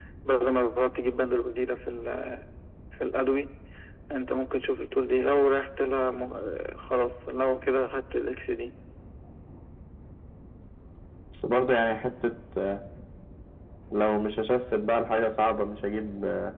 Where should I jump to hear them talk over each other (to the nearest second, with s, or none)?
none